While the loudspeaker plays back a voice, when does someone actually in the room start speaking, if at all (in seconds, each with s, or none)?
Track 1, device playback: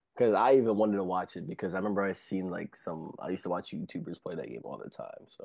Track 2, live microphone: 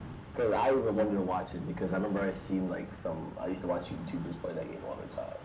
none